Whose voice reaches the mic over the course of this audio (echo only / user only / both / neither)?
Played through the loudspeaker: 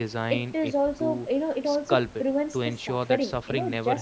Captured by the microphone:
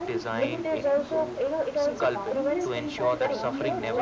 both